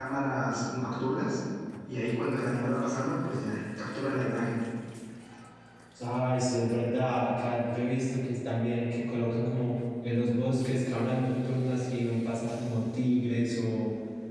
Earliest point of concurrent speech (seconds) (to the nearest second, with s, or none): none